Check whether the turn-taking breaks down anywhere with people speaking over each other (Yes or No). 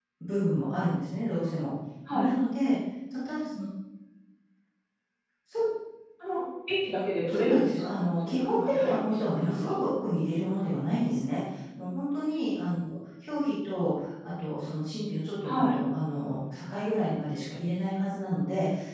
Yes